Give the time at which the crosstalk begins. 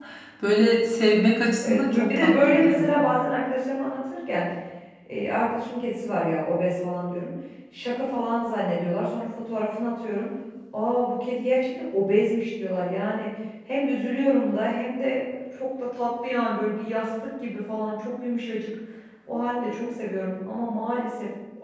1.6 s

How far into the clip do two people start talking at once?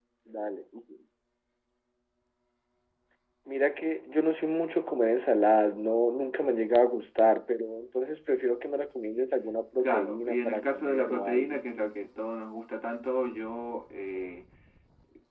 9.8 s

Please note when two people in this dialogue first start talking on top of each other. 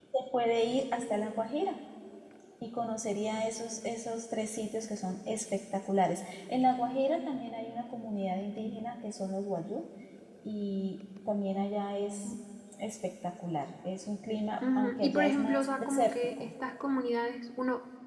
14.6 s

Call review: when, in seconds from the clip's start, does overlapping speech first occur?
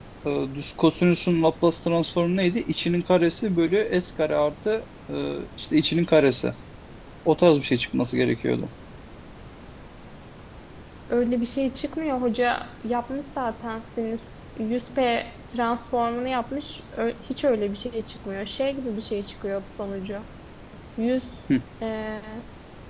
none

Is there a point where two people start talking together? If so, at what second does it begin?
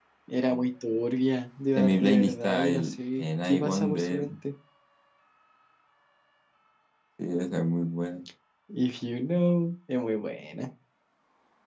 1.8 s

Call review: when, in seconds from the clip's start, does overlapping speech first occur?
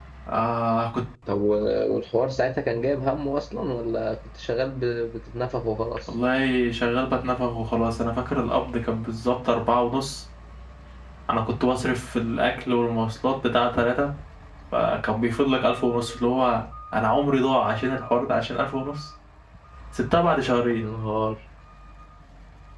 none

